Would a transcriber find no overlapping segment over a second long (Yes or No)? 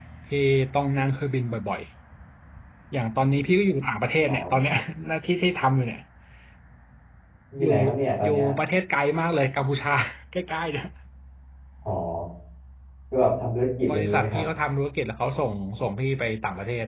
Yes